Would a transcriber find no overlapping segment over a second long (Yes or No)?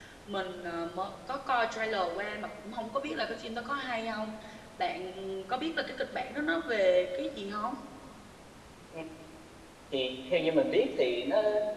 Yes